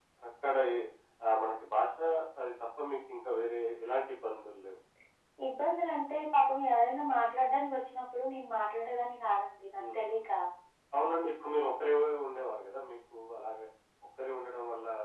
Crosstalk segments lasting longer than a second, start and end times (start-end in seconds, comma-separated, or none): none